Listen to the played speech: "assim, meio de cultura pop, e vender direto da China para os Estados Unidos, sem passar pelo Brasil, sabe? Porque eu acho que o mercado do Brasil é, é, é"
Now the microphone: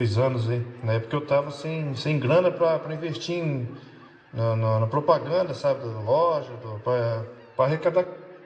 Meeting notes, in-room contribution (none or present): present